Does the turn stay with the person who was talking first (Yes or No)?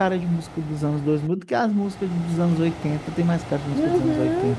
No